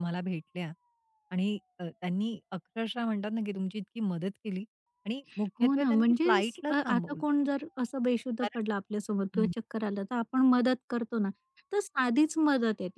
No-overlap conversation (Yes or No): No